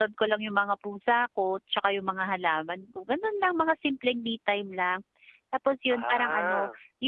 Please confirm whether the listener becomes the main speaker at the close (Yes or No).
No